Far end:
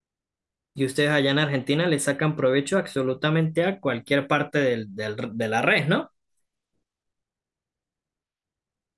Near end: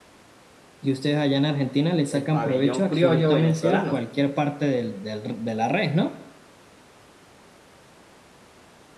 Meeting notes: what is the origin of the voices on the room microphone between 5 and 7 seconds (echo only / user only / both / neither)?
echo only